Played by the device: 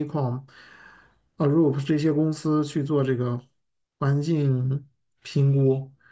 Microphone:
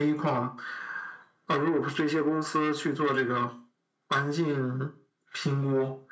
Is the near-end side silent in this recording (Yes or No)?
Yes